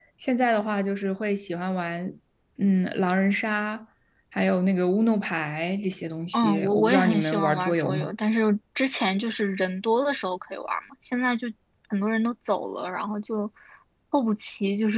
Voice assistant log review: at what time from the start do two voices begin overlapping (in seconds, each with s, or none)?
6.3 s